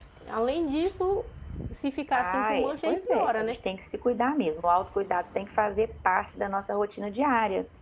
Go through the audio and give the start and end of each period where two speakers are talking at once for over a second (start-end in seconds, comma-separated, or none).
2.1-3.6